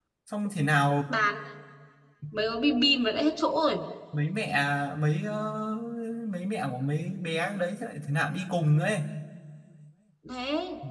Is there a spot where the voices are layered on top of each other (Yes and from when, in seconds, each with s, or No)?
No